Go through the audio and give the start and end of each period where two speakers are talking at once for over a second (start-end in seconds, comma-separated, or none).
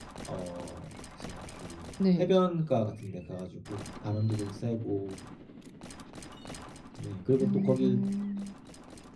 none